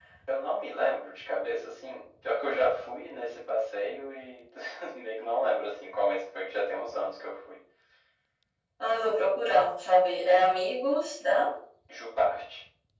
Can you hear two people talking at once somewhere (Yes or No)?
No